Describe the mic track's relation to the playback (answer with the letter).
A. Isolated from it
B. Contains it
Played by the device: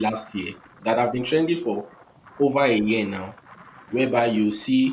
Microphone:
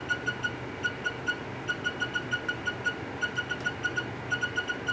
A